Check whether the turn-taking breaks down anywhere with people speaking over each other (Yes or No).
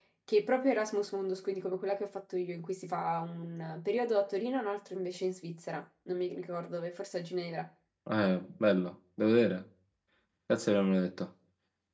No